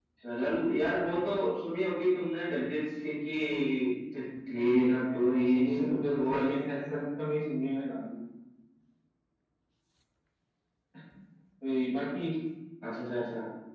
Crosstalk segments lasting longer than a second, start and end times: 4.5-6.5

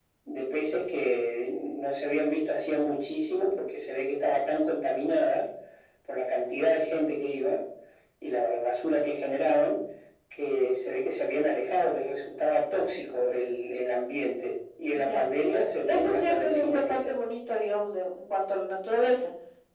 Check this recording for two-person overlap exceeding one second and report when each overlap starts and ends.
15.9-17.1

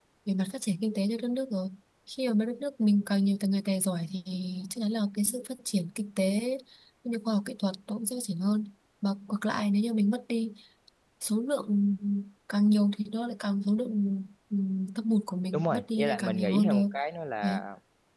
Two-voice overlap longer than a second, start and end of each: 15.5-16.8

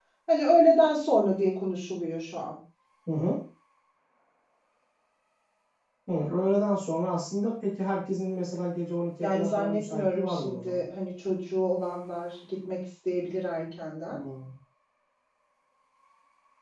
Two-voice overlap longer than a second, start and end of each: 9.2-10.8

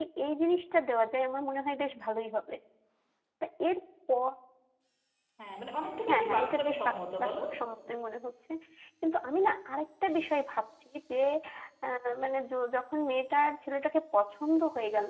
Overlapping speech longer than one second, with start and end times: 6.1-7.3

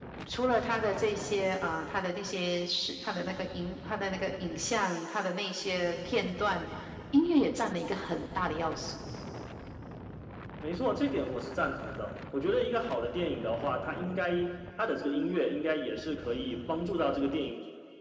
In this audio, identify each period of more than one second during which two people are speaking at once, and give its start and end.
none

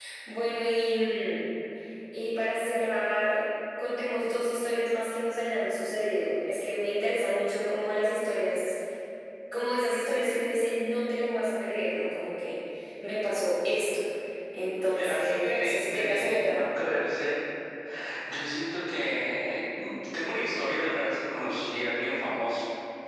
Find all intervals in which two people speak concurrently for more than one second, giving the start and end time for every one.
14.9-16.6

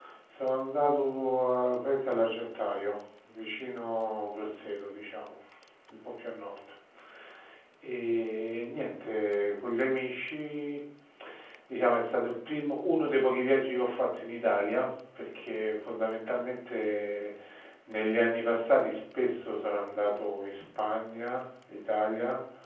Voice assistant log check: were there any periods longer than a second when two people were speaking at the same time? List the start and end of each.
none

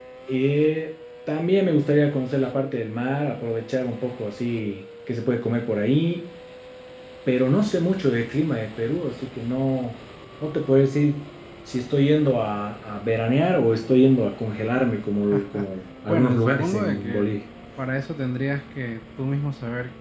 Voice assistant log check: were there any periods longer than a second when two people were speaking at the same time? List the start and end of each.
16.1-17.3

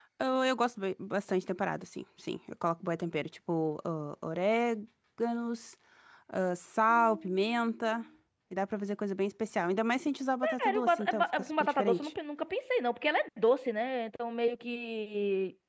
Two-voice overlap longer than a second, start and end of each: 10.6-12.1

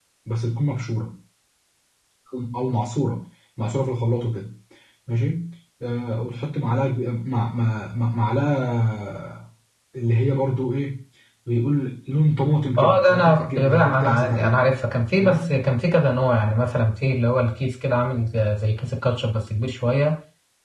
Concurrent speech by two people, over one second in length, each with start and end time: 12.8-14.7

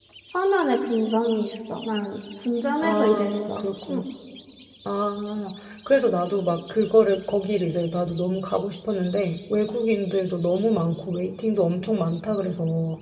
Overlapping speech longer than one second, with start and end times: 2.8-4.0

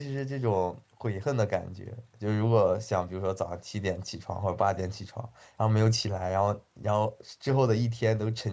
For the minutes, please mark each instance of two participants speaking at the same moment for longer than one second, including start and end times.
none

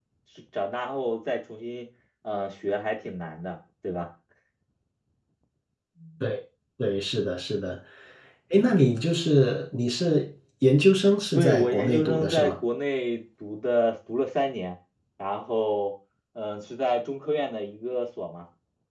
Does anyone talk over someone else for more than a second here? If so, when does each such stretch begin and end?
11.3-12.5

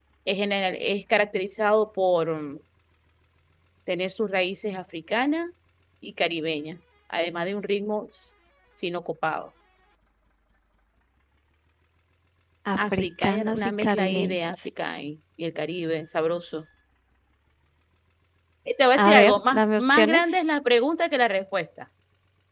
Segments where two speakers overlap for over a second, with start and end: 12.8-14.4, 19.0-20.2

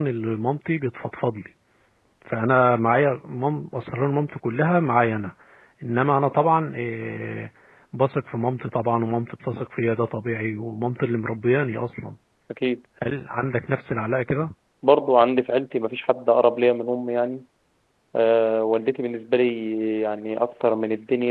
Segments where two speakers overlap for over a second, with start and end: none

